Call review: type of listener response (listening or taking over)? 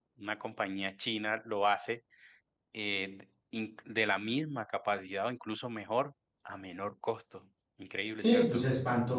taking over